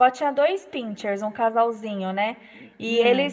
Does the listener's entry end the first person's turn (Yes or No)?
No